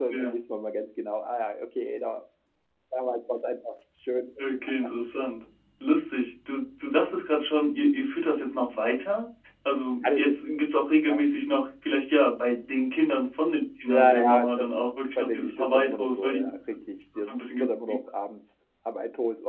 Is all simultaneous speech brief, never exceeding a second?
No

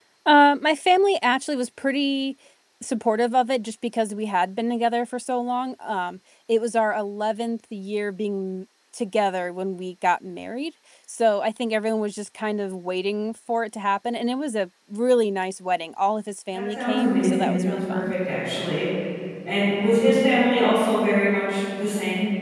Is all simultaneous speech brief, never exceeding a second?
No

